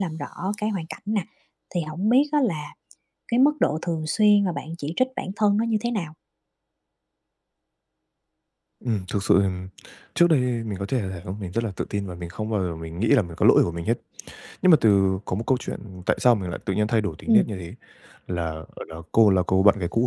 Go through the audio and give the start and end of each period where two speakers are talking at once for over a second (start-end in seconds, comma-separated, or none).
none